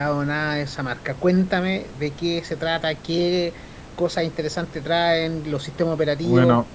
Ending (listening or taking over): taking over